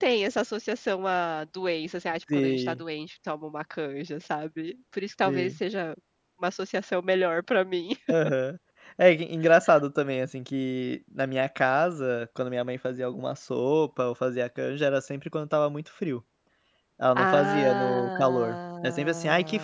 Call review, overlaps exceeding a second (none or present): present